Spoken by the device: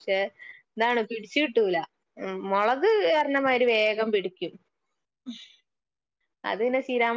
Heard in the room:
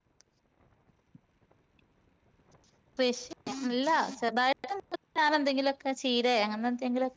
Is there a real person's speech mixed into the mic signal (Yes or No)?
Yes